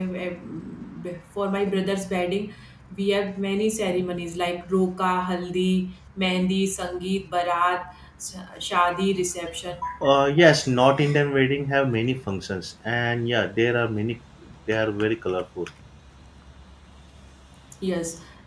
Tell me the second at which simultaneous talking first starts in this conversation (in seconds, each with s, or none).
none